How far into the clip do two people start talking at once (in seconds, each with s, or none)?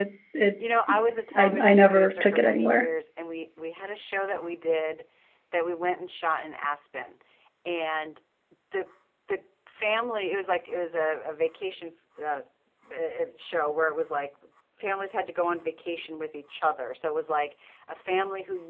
1.4 s